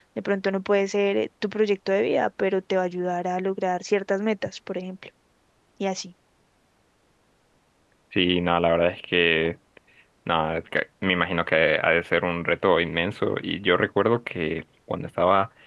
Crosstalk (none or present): none